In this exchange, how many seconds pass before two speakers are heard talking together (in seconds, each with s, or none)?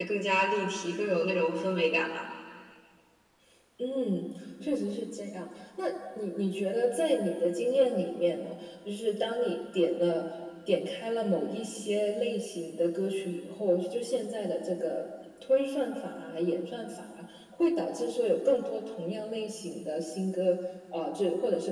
none